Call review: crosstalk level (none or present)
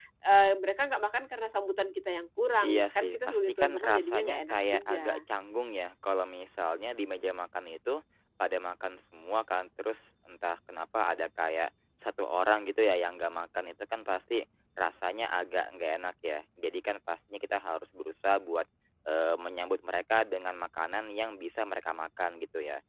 present